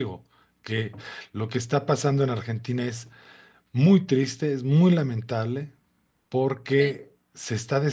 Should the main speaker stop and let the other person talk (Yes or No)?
No